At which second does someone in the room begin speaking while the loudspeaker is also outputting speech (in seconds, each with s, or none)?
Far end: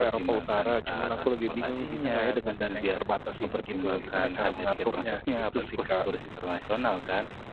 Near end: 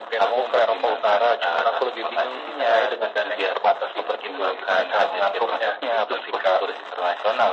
none